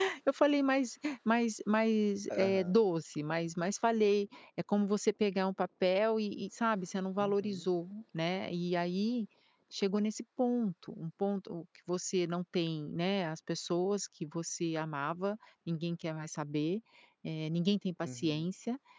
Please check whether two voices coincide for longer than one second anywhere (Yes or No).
No